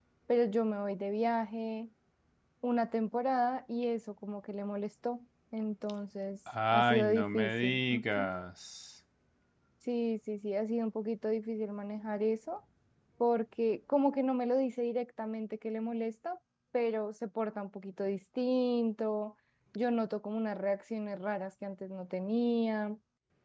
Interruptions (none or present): present